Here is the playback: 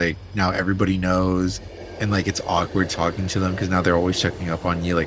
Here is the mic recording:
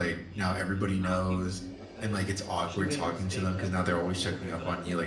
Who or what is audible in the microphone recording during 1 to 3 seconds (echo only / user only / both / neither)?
both